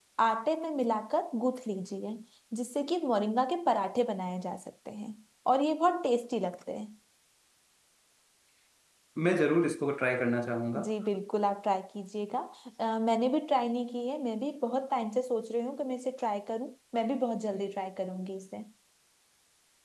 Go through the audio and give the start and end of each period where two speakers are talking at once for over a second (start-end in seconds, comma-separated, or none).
none